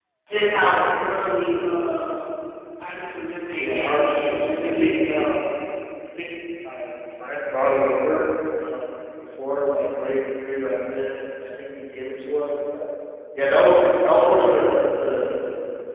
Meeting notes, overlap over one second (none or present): present